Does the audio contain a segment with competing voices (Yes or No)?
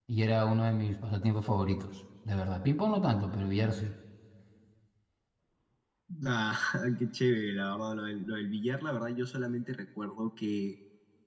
No